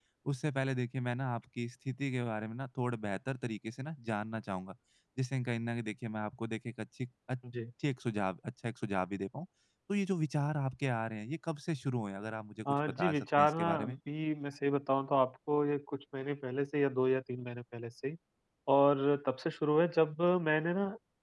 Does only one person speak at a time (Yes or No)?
No